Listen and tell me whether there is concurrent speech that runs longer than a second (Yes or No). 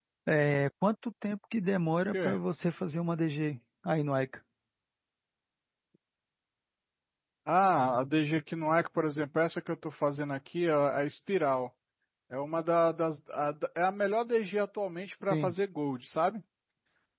No